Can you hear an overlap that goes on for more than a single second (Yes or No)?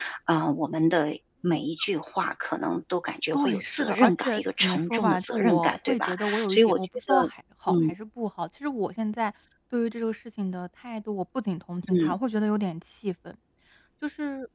Yes